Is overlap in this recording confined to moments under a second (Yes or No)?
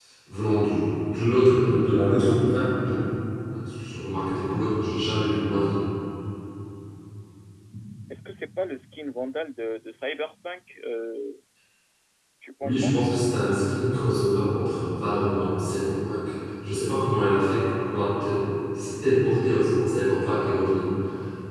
Yes